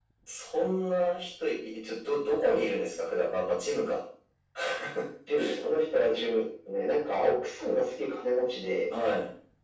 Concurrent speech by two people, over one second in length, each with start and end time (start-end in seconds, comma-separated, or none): none